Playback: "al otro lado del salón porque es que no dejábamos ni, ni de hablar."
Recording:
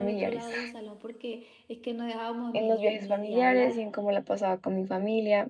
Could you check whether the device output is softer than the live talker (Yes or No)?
Yes